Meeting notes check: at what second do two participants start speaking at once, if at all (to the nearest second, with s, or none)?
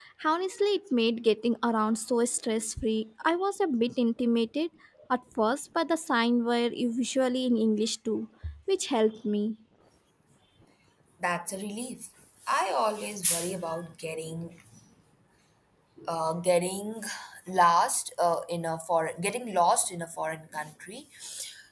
none